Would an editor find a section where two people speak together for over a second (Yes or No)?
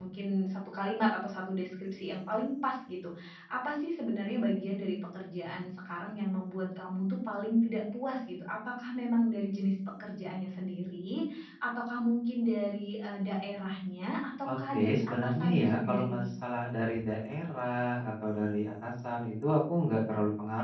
Yes